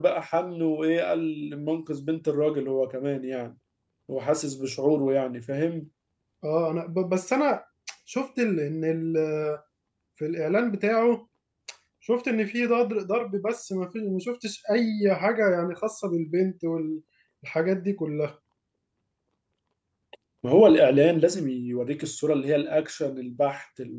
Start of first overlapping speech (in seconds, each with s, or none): none